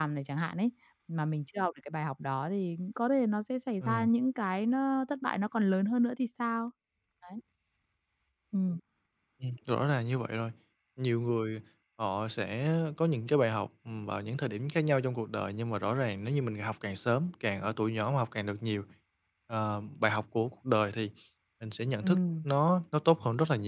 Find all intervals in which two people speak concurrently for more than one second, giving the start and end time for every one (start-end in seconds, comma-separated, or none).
none